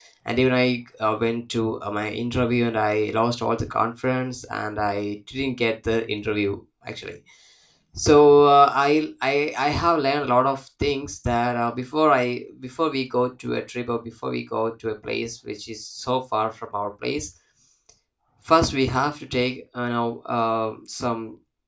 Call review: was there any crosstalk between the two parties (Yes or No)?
No